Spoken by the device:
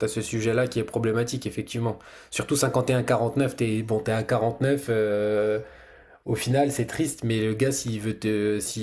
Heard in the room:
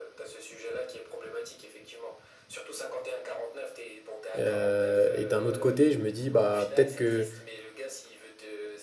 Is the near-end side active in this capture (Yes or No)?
Yes